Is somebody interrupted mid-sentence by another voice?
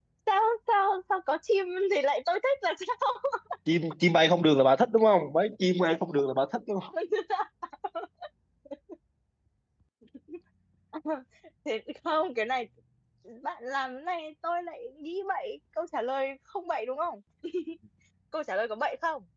No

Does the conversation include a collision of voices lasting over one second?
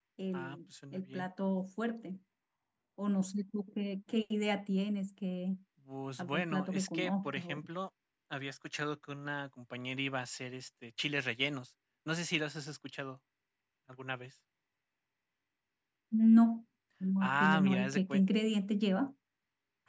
Yes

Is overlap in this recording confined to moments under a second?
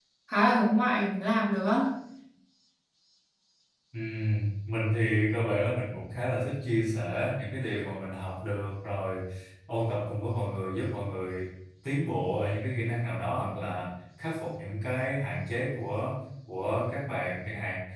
Yes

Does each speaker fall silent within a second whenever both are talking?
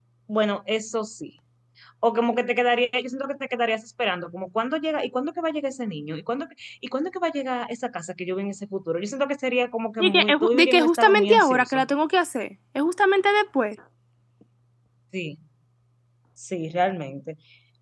No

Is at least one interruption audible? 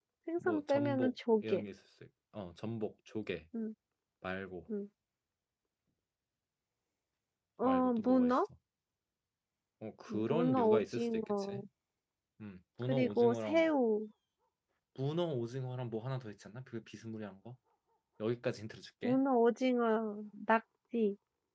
Yes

